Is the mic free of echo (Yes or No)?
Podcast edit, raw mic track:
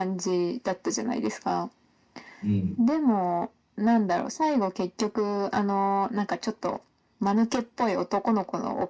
No